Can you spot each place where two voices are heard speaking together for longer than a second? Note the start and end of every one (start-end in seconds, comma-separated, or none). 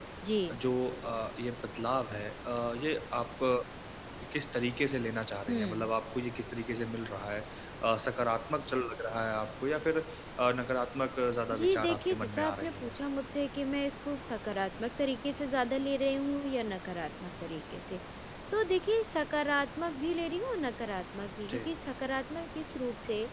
11.5-12.9